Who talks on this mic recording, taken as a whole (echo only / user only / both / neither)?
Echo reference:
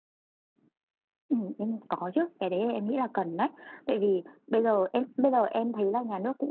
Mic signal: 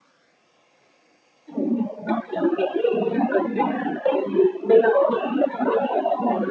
echo only